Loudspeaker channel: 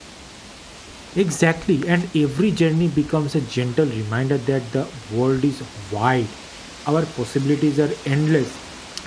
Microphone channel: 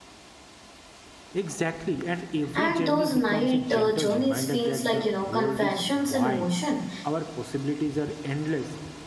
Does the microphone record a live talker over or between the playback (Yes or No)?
Yes